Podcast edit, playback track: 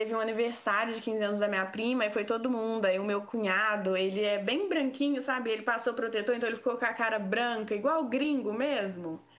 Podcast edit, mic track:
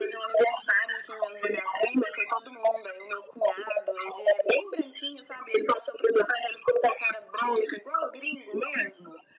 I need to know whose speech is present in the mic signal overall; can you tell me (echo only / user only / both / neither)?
echo only